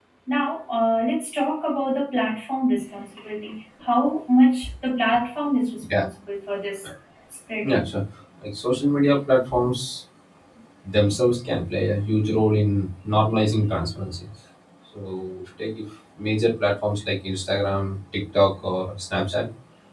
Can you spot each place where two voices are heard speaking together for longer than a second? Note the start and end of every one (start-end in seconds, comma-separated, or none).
none